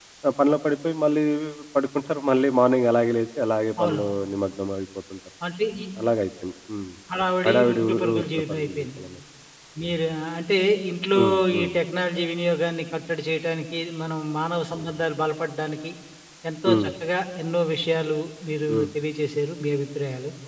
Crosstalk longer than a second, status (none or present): present